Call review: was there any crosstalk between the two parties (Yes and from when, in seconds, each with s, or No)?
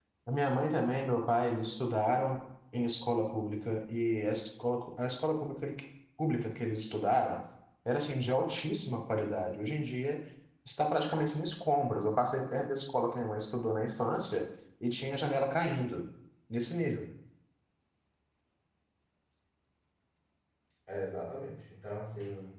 No